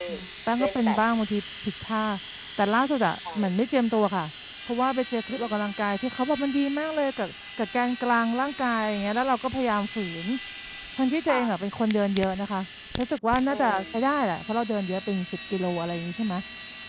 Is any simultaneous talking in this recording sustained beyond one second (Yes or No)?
No